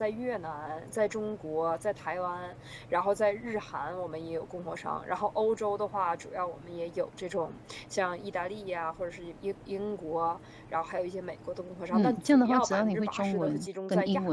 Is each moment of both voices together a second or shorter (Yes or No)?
No